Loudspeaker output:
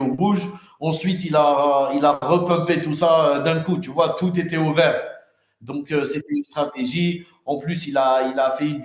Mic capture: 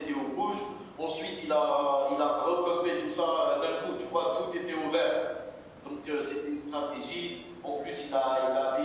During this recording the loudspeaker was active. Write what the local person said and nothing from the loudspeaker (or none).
none